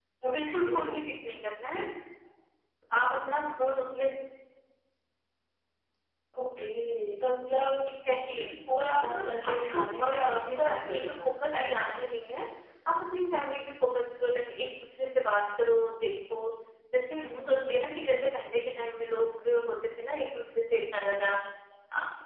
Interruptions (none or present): present